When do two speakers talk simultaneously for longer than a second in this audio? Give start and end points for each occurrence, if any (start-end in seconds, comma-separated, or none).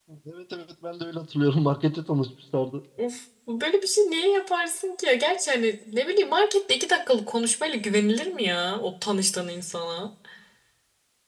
none